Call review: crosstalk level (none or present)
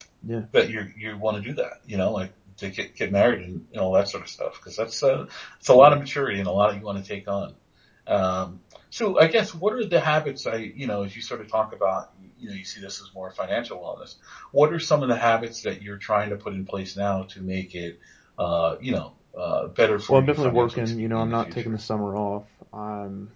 present